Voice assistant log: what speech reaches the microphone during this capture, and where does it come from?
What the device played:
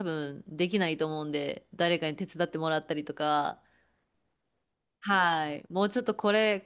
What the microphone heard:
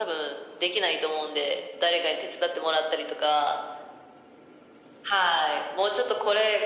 echo only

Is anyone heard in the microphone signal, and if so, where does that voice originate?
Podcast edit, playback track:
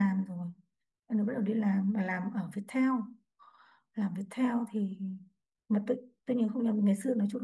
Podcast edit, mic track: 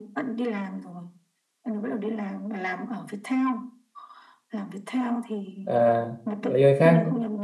both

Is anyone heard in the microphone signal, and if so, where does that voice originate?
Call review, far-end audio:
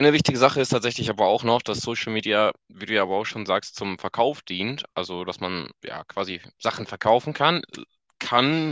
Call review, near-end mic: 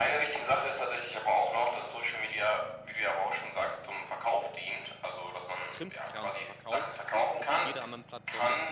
both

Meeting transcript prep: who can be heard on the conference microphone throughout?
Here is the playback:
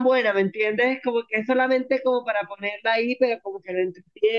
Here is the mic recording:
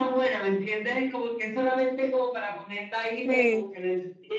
both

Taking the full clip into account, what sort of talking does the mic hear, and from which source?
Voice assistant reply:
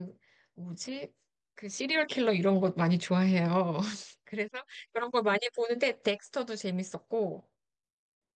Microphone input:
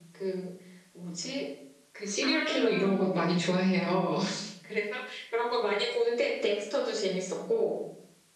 both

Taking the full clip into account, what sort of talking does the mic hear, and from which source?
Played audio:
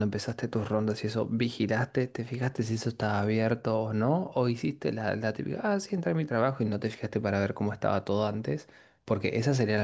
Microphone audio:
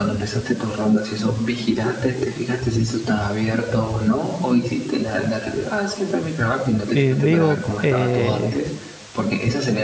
both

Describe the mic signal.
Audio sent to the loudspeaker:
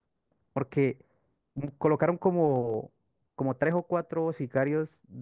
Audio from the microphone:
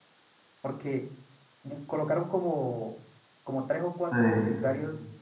both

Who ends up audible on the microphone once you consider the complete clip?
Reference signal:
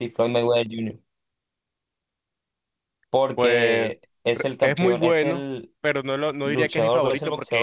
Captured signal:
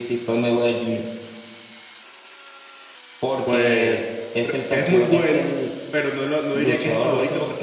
echo only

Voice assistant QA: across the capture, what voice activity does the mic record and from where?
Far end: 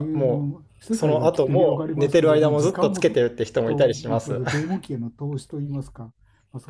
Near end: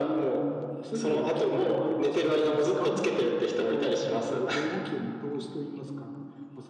echo only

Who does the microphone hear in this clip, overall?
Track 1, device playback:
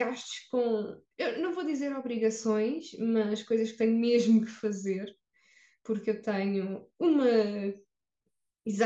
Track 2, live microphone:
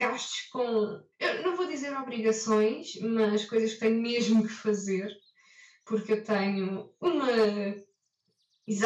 echo only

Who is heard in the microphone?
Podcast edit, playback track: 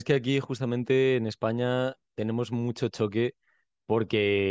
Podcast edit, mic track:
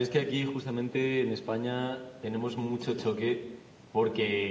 echo only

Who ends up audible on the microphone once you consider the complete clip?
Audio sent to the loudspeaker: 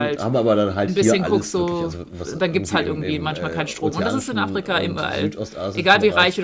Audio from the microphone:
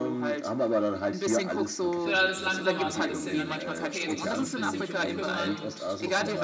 both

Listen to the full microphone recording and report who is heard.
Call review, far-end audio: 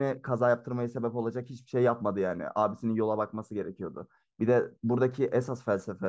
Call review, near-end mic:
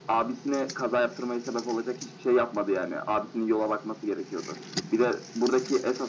echo only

